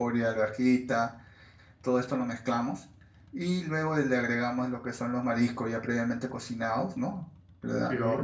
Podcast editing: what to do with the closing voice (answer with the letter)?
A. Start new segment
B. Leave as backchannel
B